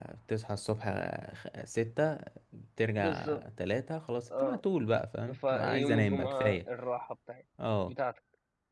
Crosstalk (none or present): present